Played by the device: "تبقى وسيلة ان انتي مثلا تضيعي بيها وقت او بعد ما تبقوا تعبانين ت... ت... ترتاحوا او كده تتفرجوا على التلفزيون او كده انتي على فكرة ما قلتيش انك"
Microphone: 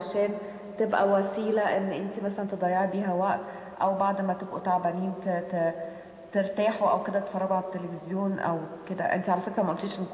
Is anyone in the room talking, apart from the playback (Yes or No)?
No